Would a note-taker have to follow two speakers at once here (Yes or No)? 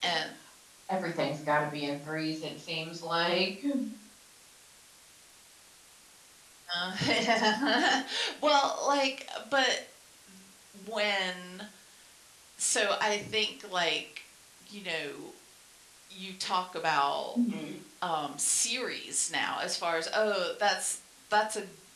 No